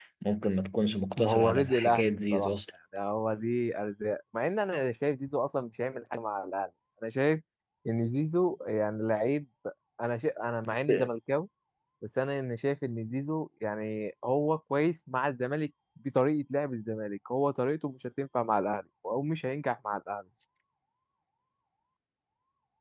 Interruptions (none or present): present